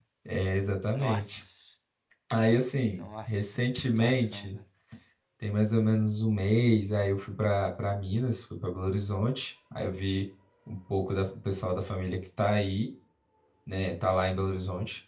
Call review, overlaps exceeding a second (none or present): present